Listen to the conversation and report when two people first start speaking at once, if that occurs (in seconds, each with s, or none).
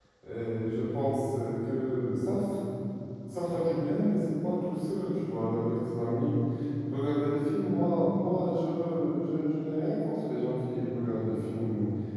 none